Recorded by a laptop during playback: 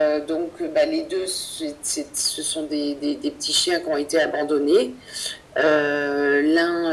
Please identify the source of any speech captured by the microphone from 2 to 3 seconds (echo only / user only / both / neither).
echo only